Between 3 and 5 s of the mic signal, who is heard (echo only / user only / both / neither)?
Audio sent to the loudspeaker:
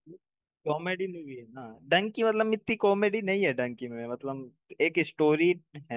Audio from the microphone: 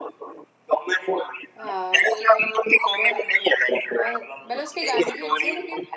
both